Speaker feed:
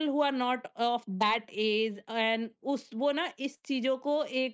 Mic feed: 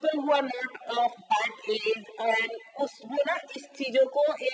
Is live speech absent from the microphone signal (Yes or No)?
Yes